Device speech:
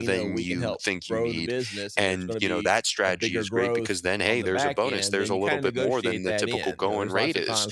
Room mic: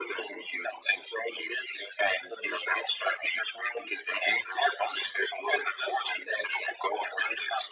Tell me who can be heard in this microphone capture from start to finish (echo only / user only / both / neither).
echo only